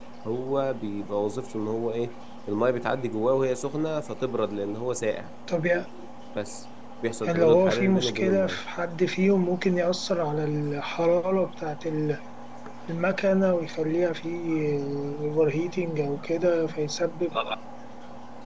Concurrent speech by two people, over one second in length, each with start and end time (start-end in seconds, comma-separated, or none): 7.3-8.6